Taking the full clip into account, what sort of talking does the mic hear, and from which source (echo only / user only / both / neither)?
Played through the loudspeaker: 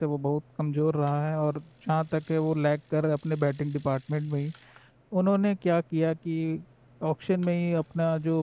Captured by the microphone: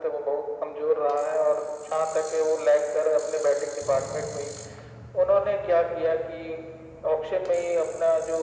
echo only